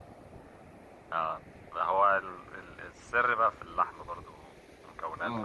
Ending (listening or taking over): taking over